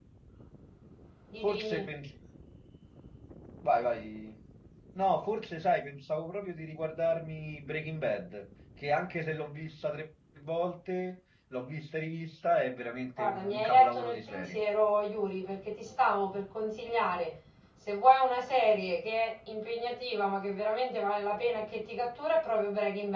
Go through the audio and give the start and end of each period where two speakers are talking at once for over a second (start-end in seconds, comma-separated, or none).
13.2-14.6